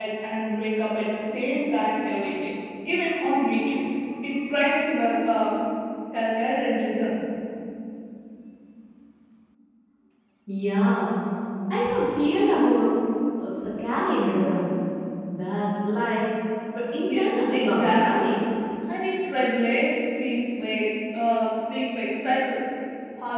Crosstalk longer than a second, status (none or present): present